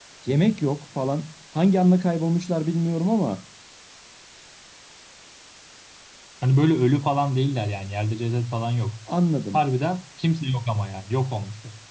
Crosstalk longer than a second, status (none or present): none